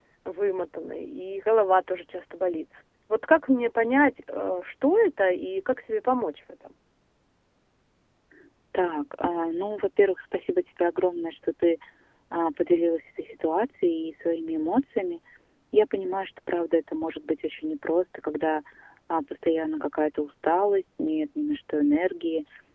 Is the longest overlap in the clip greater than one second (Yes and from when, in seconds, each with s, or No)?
No